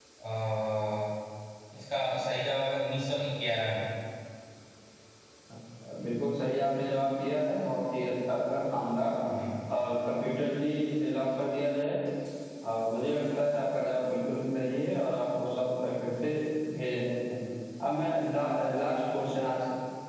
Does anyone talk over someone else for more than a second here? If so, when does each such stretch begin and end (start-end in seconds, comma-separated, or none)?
none